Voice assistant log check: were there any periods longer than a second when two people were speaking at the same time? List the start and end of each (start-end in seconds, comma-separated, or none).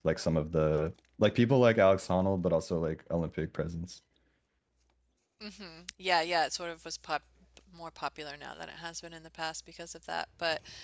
none